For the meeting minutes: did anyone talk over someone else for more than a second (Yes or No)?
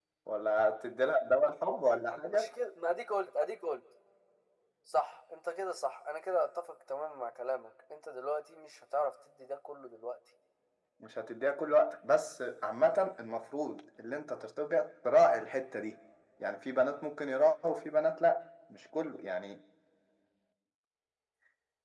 No